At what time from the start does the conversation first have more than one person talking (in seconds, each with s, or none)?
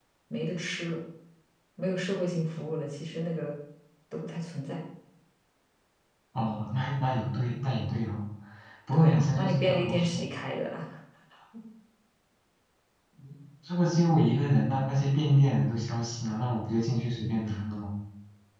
8.9 s